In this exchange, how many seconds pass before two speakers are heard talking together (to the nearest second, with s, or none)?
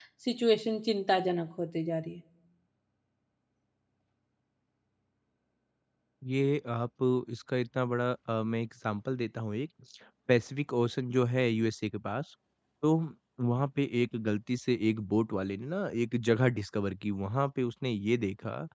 none